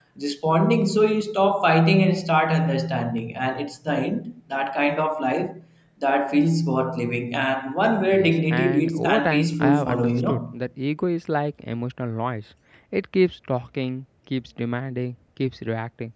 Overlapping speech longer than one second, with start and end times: 8.1-10.5

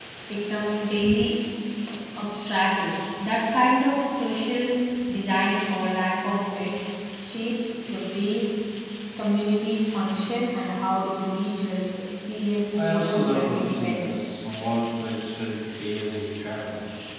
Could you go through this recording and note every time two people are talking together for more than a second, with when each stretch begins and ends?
12.8-14.3

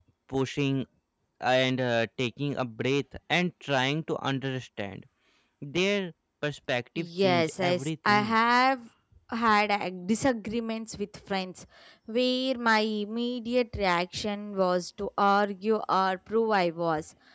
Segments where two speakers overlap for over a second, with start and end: 7.0-8.3

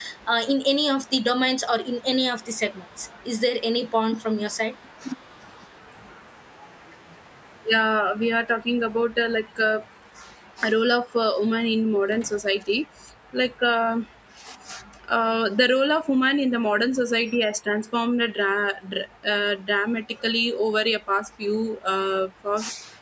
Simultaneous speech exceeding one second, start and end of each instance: none

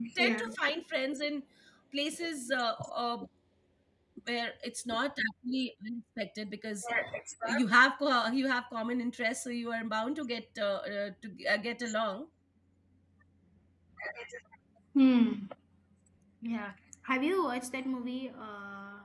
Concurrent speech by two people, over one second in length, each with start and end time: none

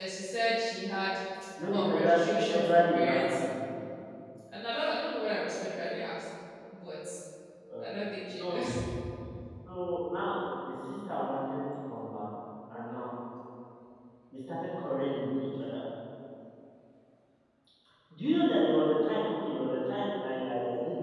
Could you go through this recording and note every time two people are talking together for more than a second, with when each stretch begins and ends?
1.7-3.2

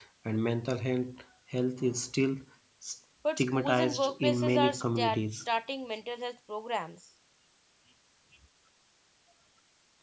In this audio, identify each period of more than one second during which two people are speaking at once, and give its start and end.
3.4-5.2

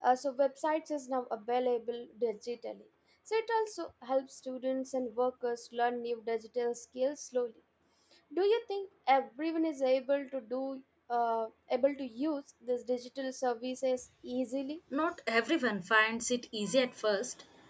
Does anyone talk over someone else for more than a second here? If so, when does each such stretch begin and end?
none

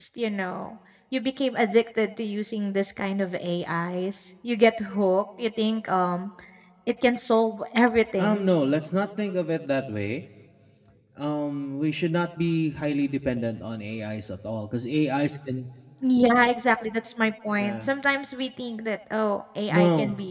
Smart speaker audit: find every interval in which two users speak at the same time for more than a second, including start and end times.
none

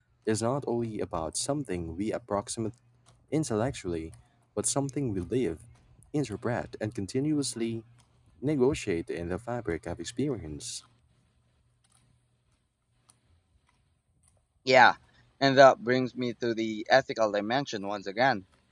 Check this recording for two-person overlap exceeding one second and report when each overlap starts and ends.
none

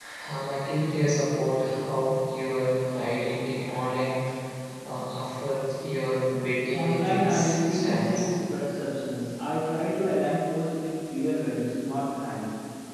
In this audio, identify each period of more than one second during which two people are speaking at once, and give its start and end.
6.7-8.3

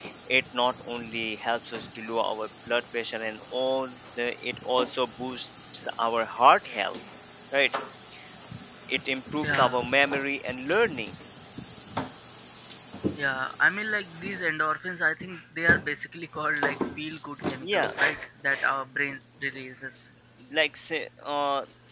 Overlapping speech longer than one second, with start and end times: none

